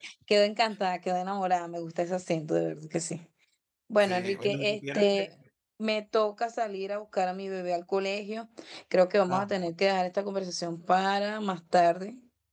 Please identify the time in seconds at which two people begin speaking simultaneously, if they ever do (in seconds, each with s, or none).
4.0 s